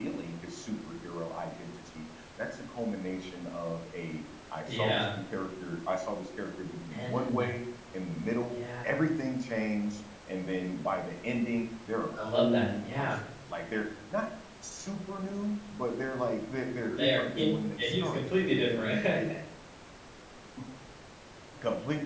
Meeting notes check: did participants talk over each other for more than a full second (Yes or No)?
Yes